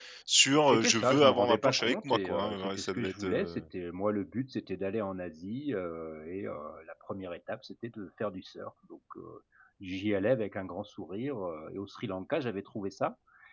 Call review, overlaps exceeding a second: present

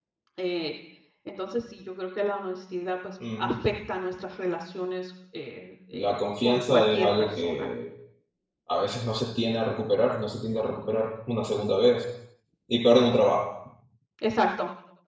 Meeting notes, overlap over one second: present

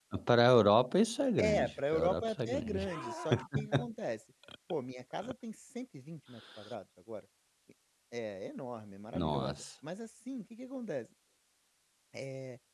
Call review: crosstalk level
present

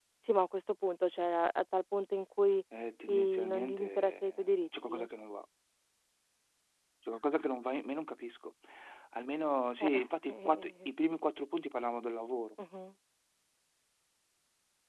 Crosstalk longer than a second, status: present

